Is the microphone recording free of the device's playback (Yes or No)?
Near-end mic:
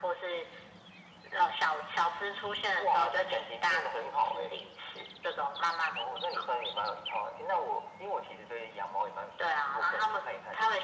No